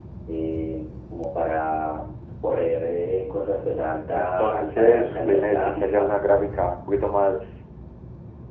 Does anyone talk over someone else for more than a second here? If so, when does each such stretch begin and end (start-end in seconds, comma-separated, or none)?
4.1-6.1